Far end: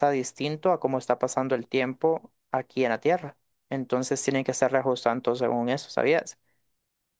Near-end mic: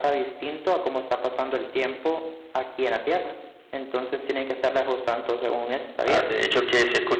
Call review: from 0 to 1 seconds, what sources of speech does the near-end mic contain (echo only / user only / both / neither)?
echo only